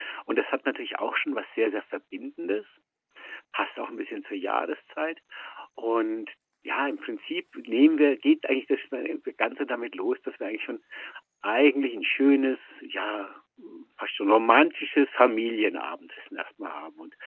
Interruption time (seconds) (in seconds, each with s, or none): none